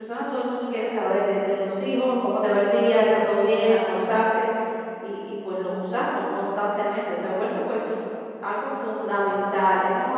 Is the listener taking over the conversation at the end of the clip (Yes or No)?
No